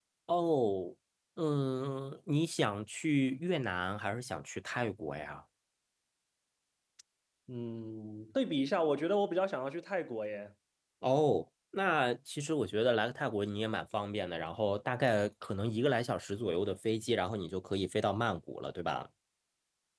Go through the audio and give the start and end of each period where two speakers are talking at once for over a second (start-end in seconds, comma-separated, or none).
none